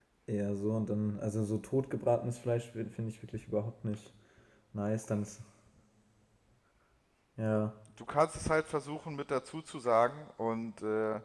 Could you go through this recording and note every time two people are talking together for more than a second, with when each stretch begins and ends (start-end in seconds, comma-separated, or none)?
none